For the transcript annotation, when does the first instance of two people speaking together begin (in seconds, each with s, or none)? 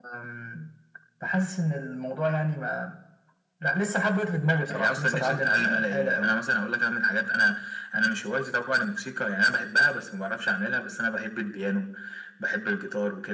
4.7 s